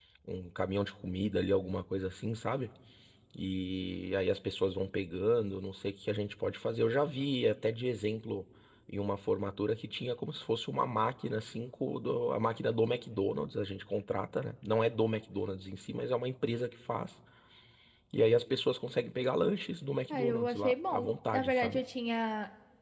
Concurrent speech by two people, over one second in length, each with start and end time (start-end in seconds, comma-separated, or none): 20.1-21.8